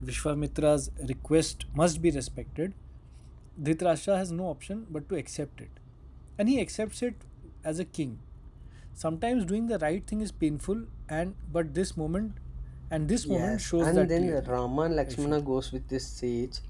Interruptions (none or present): present